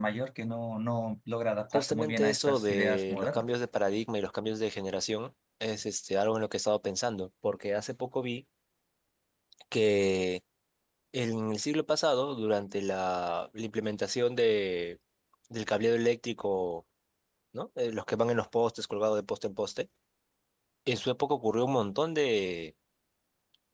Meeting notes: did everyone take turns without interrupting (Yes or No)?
No